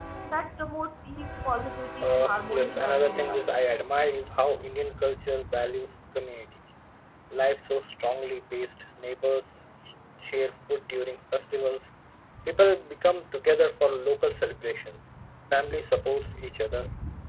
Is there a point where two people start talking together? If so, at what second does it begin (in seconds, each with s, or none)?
2.0 s